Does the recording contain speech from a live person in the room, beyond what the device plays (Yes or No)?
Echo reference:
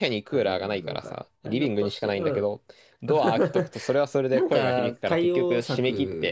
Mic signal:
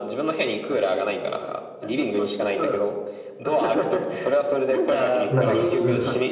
Yes